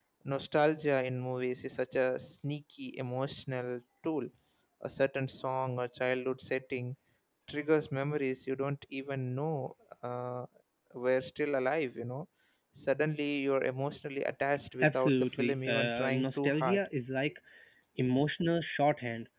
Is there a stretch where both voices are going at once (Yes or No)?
Yes